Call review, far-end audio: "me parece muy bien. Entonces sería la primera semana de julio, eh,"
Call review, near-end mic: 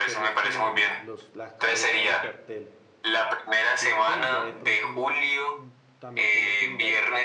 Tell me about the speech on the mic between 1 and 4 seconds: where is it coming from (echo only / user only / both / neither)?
both